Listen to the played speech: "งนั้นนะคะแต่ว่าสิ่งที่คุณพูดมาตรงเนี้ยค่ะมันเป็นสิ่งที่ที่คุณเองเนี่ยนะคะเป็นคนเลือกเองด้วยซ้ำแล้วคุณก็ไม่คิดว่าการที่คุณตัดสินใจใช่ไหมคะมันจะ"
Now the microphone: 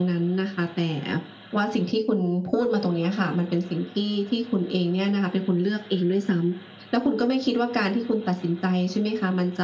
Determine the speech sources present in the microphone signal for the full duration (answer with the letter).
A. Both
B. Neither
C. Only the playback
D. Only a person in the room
C